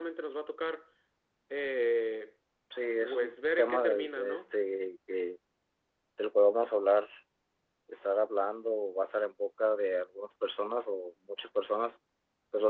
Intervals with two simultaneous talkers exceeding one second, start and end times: 3.0-4.5

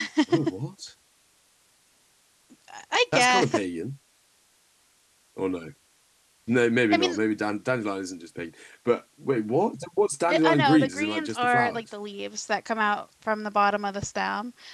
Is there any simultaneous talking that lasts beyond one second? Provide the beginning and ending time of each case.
10.3-11.8

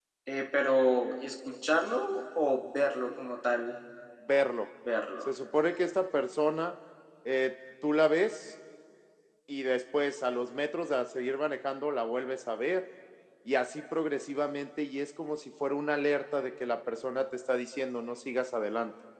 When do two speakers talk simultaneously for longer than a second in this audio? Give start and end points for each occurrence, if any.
none

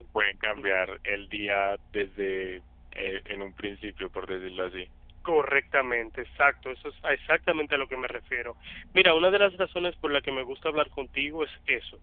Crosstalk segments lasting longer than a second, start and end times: none

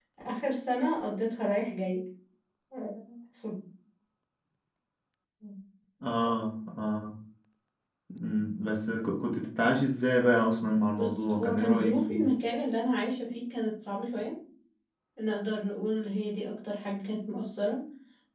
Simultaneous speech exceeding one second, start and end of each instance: 10.9-12.3

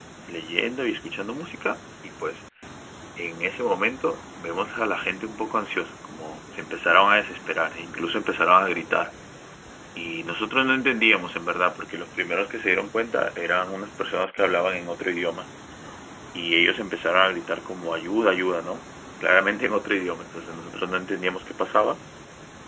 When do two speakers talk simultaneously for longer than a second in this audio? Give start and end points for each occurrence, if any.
none

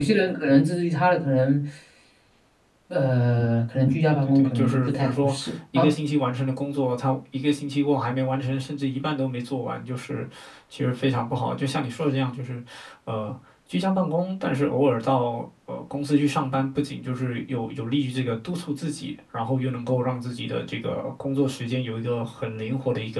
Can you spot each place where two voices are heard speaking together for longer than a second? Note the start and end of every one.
4.1-5.9

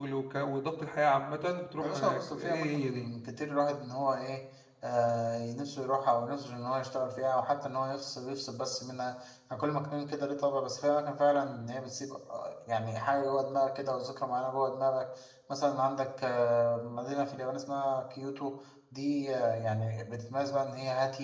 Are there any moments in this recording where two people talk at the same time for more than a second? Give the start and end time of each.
1.8-3.1

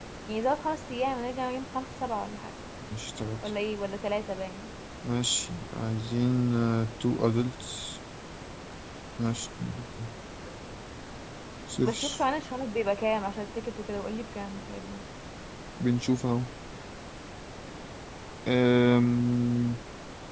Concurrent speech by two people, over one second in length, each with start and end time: none

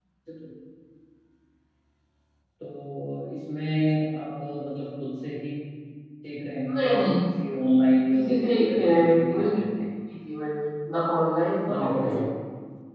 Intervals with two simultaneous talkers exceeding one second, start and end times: 8.3-9.6

